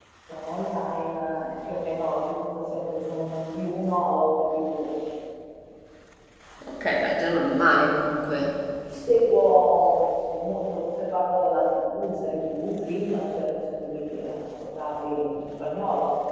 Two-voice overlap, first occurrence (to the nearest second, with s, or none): none